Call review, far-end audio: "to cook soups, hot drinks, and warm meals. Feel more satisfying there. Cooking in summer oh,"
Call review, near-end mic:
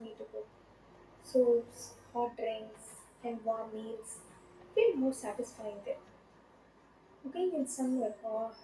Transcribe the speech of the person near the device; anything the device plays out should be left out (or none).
none